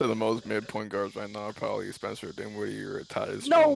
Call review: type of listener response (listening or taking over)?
taking over